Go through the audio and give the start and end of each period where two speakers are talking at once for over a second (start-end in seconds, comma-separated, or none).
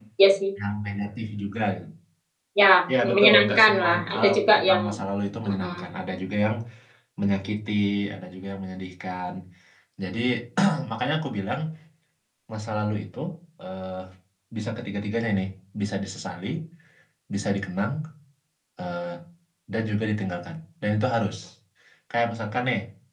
3.0-4.8